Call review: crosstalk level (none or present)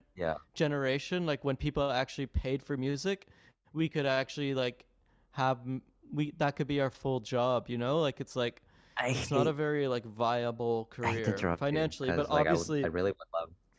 present